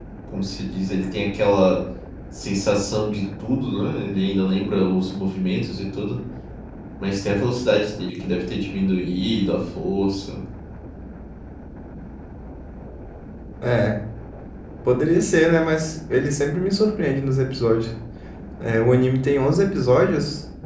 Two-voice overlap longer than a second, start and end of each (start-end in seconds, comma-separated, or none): none